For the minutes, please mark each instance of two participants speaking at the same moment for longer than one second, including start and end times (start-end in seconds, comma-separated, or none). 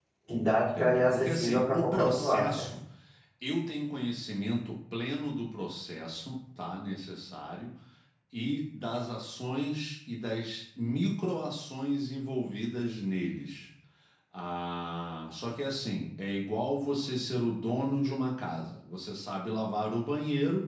0.8-2.7